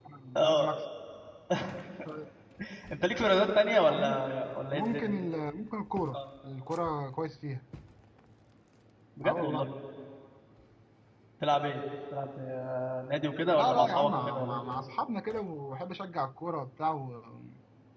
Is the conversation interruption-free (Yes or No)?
No